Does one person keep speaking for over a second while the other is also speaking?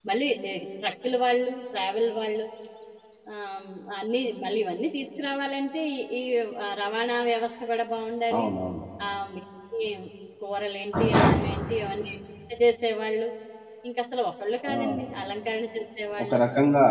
No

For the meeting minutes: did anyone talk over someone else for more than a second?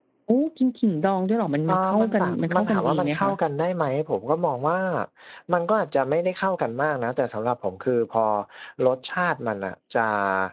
Yes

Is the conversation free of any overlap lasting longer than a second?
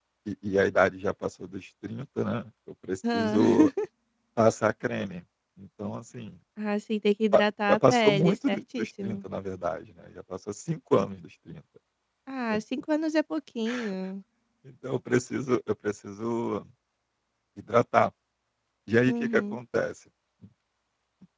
No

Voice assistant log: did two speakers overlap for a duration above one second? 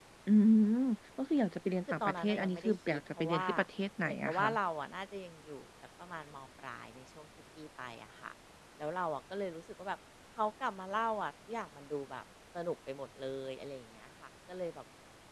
Yes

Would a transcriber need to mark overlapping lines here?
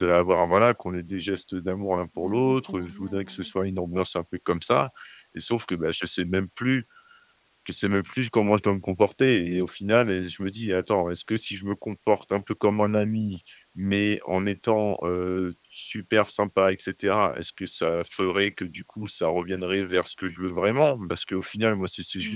Yes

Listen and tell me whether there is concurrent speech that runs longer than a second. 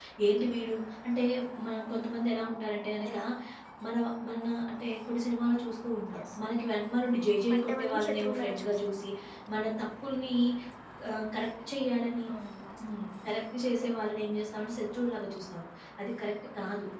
Yes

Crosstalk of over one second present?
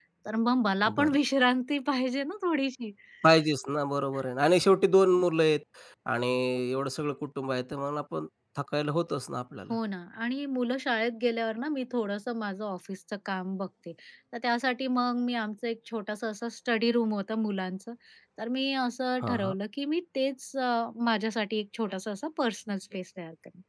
No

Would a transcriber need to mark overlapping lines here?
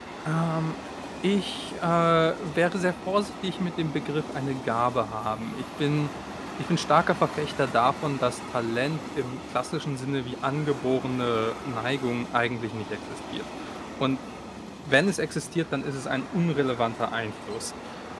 No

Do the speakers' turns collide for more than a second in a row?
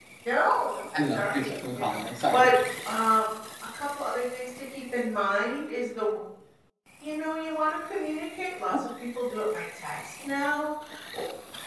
Yes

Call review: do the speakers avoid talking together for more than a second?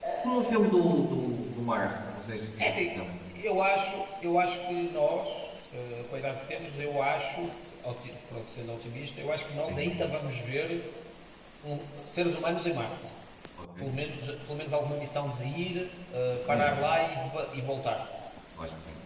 Yes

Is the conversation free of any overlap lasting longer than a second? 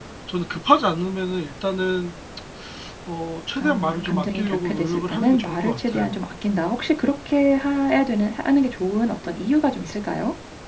No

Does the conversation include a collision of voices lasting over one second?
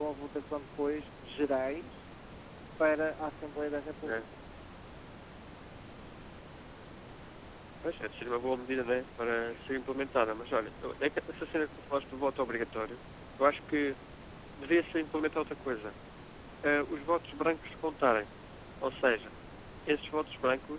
No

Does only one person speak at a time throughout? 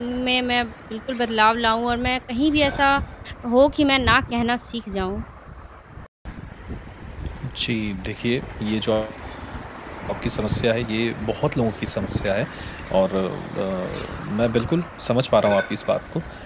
Yes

